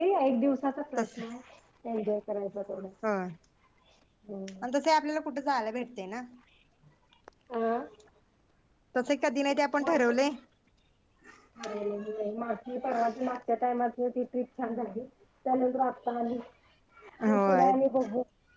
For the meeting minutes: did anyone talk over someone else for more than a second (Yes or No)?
No